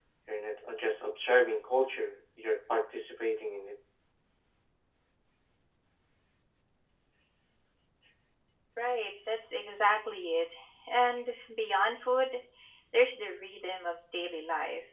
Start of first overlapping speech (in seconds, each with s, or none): none